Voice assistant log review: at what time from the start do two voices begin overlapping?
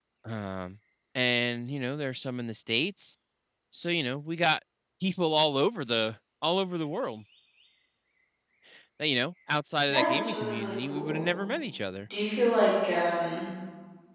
9.8 s

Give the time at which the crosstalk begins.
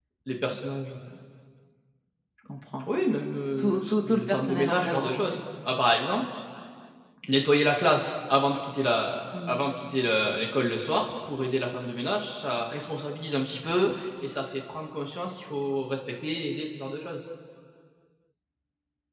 3.6 s

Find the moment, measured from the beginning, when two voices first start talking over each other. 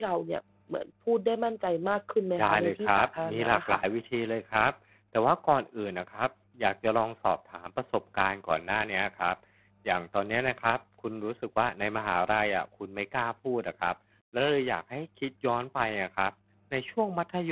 2.4 s

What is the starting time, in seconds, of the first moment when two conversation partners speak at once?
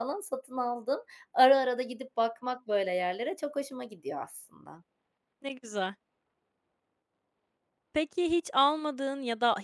none

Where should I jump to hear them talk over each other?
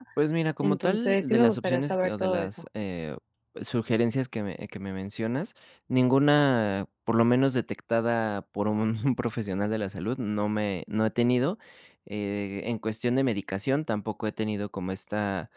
0.6 s

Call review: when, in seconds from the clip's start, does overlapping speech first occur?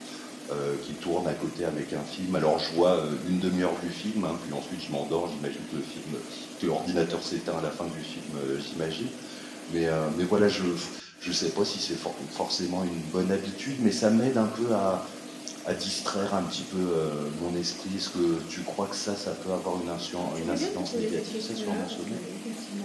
20.1 s

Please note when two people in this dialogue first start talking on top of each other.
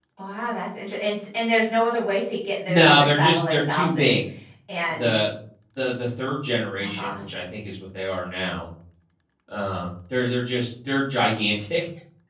2.7 s

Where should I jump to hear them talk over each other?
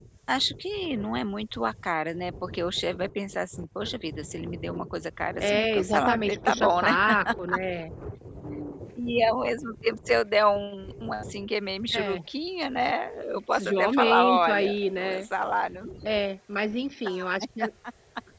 5.4 s

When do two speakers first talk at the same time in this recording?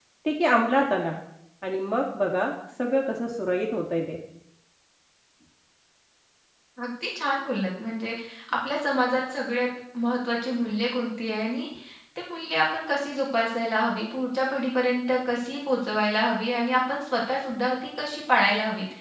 none

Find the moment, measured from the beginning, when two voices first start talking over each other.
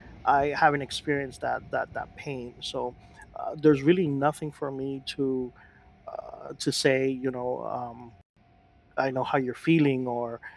none

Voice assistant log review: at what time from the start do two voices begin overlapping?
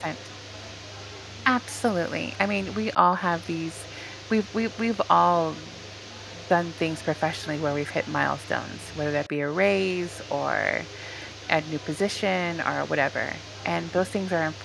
none

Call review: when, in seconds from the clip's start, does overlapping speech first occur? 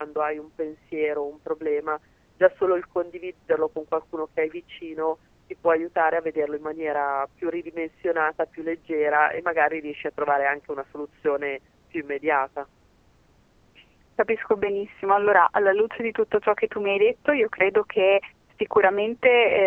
none

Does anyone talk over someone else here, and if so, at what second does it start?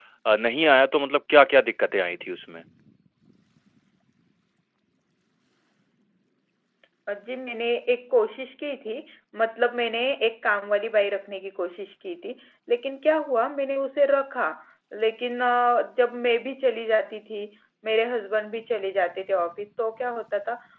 none

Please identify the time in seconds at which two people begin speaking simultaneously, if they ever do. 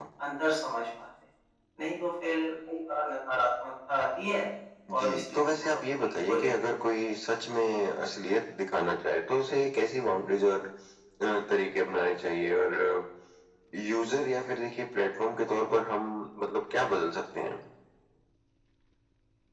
4.9 s

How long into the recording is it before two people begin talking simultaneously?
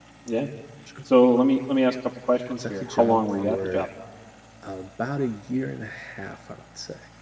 2.4 s

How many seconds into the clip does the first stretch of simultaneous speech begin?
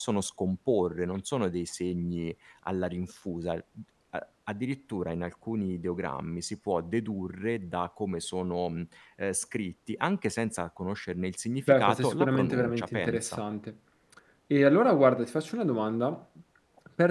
11.7 s

